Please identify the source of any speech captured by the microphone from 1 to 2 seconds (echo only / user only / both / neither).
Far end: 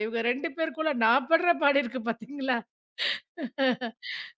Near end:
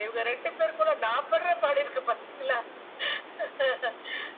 echo only